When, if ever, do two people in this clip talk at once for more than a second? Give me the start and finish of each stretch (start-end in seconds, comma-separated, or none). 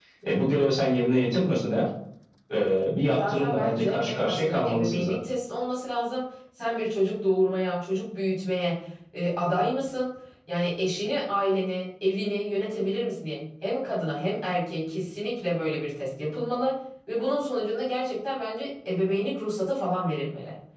3.1-5.2